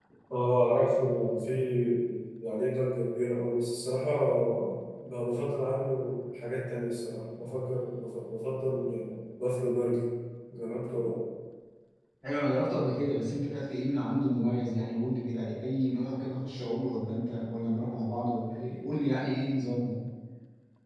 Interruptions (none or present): none